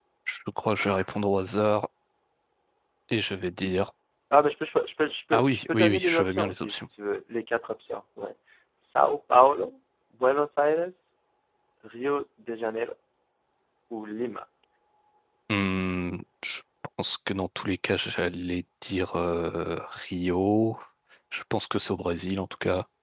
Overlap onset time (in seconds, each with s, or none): 5.3 s